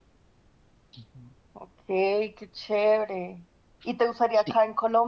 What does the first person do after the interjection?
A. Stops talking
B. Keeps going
B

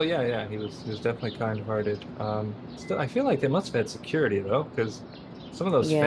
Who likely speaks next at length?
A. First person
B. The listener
B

